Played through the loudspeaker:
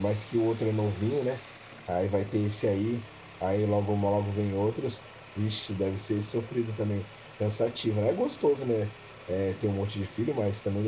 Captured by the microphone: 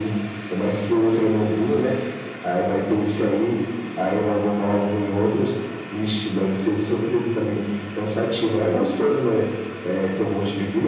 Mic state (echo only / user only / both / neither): echo only